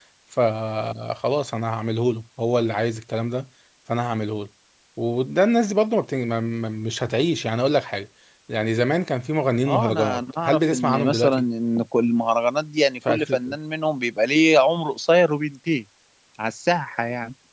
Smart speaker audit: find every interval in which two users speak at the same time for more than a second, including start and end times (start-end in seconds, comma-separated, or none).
9.7-11.4